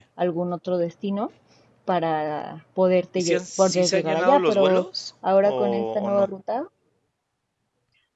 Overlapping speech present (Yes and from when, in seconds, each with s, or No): Yes, from 3.2 s